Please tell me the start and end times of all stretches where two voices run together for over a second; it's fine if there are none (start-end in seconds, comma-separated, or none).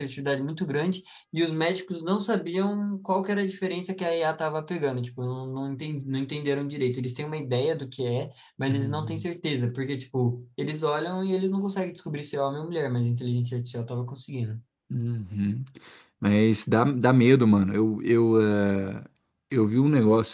none